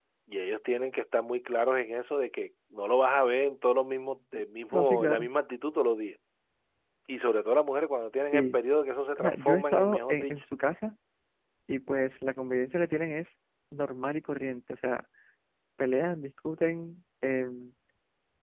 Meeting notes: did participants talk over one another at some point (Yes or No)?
Yes